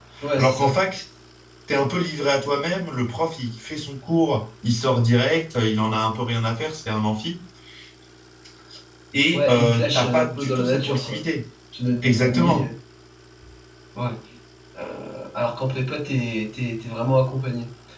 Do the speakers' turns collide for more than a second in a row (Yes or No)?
Yes